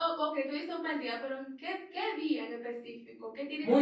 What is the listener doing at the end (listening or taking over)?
taking over